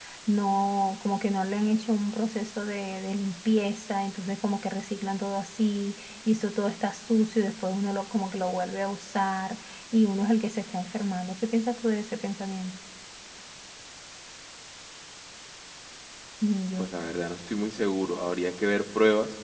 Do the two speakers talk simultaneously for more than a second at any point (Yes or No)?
No